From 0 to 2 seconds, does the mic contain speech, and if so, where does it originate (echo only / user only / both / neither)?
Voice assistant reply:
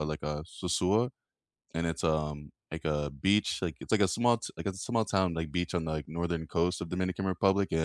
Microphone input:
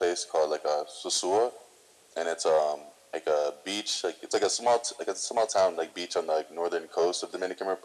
echo only